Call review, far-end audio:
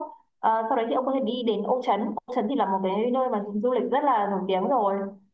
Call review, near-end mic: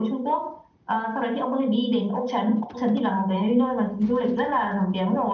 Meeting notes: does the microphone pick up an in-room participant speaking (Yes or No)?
No